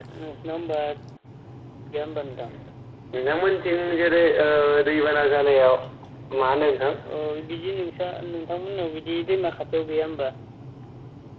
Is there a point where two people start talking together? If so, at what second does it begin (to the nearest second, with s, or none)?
none